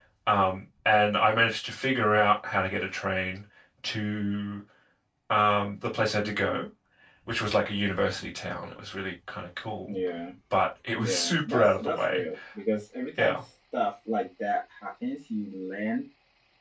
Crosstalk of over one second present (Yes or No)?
Yes